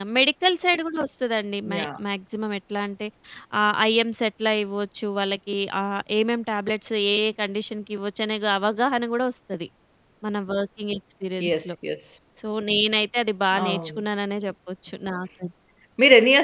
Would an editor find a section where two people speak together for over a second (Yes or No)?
No